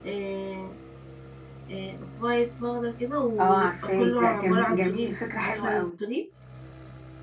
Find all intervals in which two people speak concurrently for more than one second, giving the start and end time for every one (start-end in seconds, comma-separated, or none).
3.4-5.9